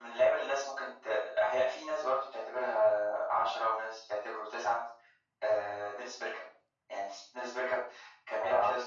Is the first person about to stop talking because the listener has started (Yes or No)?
No